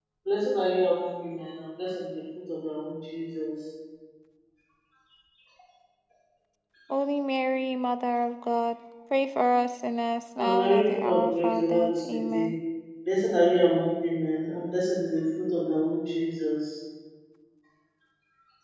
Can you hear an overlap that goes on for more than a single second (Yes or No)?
Yes